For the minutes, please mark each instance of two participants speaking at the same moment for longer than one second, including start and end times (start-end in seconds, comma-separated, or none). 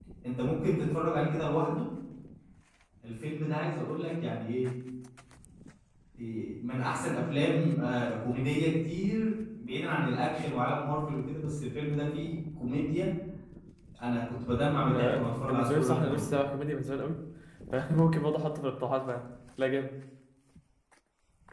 14.9-16.2